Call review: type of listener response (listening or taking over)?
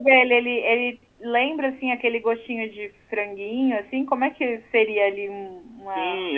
taking over